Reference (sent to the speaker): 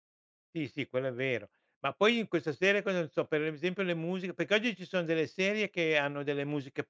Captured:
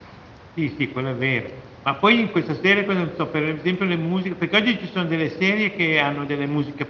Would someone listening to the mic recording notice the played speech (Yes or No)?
Yes